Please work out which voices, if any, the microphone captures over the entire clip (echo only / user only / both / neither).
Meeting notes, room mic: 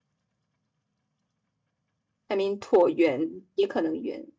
user only